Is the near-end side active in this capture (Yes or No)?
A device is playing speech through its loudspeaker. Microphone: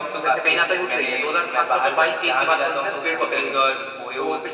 No